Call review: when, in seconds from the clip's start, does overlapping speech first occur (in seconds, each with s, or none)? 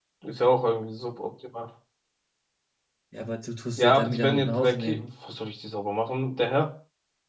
3.8 s